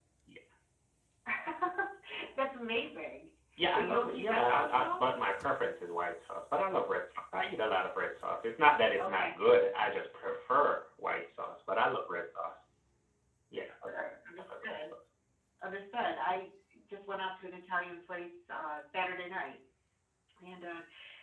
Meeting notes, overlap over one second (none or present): present